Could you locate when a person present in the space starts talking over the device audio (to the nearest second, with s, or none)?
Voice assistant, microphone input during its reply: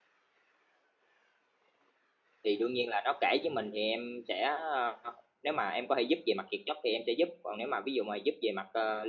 2 s